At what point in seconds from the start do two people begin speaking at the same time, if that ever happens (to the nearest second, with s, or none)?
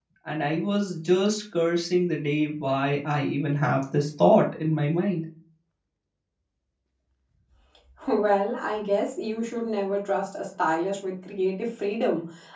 none